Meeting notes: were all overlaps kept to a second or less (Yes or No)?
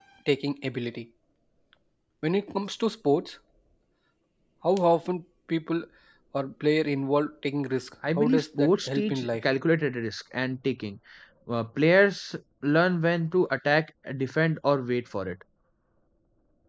No